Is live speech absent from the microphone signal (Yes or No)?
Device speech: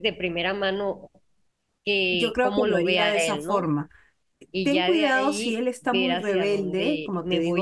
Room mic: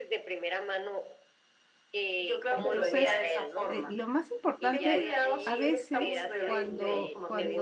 No